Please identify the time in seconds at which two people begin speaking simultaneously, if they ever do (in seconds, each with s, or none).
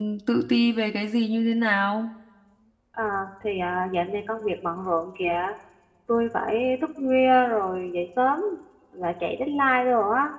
none